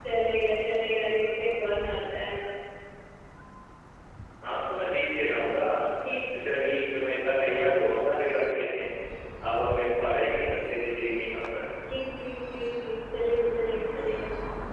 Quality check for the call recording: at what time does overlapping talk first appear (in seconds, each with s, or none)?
none